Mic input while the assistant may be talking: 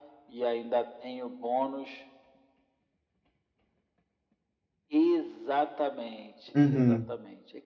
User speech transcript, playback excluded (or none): Uhum.